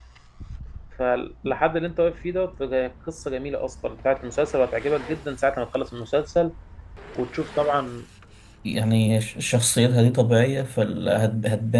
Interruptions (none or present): none